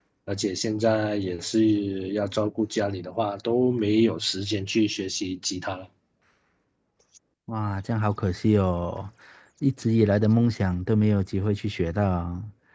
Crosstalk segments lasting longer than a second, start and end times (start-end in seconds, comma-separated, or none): none